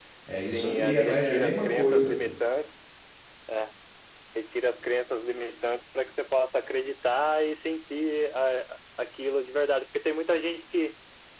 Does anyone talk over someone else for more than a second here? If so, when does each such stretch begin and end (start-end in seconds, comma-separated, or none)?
0.5-2.2